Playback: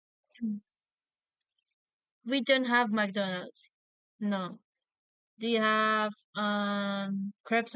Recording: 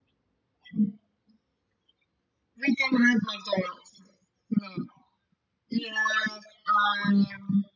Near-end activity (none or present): none